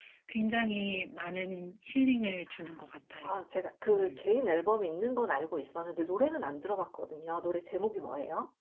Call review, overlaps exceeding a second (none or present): none